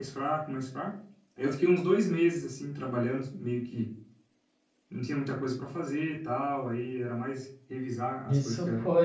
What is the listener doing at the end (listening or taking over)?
taking over